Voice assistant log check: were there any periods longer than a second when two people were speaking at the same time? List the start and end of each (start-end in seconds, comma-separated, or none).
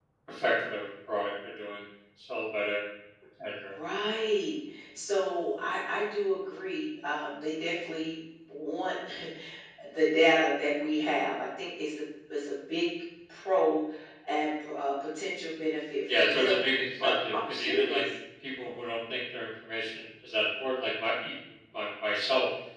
16.2-18.0